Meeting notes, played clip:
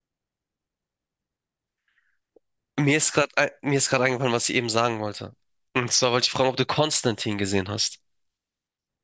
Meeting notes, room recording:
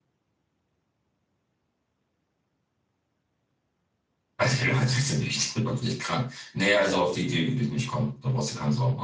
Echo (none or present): none